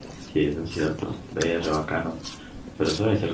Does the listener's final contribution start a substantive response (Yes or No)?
No